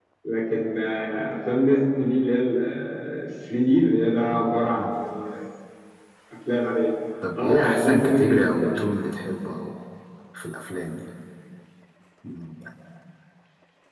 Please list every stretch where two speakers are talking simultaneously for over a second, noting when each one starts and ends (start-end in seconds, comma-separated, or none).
7.4-8.8